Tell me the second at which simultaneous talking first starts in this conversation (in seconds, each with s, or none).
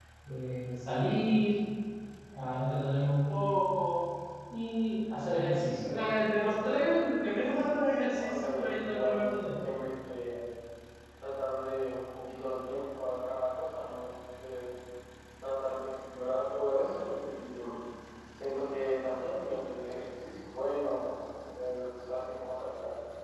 8.2 s